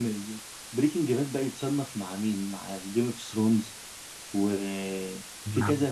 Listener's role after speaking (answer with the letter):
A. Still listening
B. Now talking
A